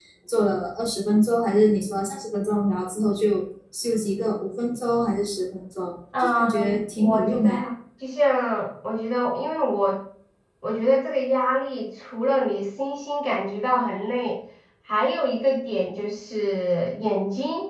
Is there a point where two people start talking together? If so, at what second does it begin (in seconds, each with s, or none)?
6.1 s